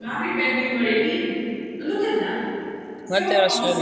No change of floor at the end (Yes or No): No